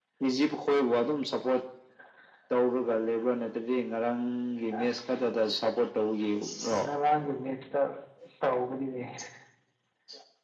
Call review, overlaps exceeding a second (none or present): none